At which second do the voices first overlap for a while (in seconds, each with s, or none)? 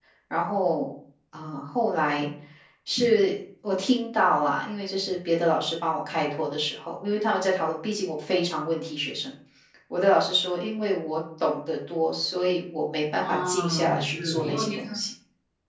13.2 s